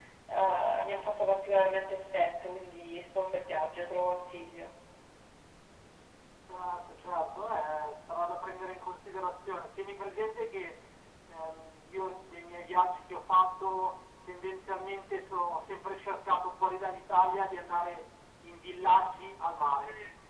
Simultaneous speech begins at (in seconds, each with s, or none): none